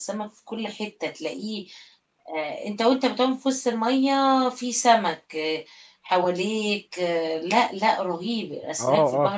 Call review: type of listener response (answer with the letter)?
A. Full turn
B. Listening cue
A